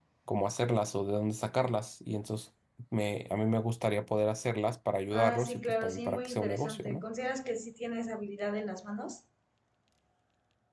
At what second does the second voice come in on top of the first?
5.1 s

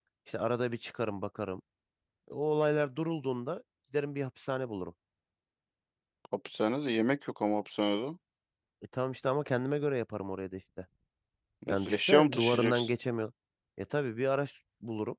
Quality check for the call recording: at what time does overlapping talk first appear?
11.7 s

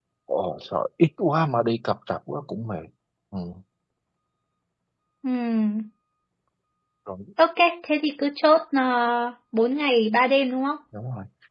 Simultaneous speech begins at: none

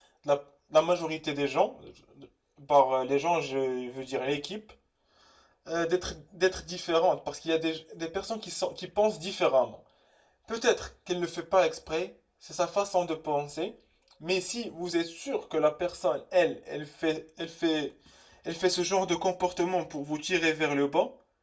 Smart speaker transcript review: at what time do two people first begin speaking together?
none

